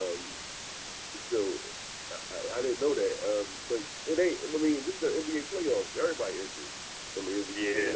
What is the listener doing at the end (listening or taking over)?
taking over